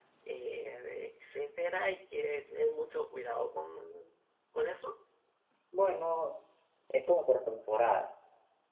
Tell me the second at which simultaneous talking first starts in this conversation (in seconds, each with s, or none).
none